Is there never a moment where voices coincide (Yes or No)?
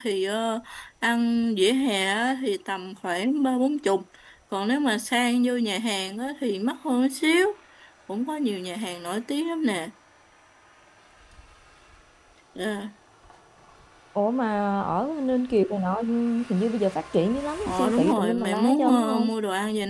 No